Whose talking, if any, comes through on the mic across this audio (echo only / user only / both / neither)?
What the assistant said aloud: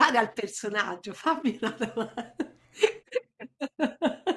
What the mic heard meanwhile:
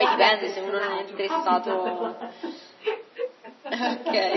both